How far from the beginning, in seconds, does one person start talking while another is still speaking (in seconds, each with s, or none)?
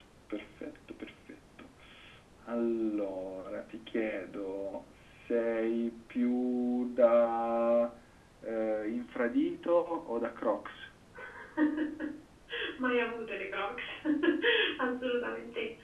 none